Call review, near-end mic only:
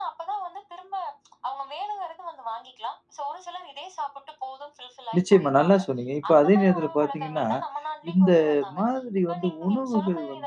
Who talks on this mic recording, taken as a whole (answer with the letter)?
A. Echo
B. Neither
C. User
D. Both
D